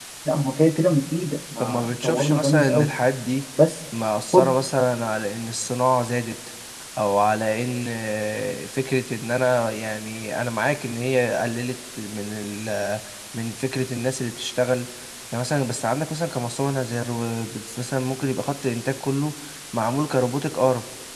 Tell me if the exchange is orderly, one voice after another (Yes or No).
No